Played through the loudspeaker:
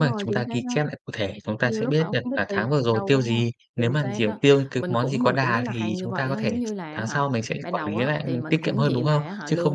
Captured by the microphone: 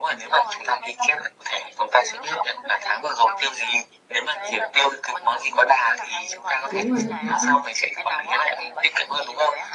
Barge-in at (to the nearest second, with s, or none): 7 s